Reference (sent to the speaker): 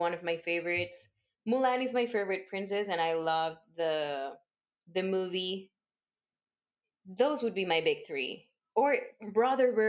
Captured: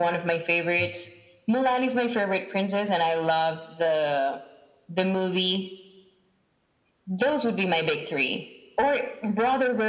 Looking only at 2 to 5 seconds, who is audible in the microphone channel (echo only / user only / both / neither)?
echo only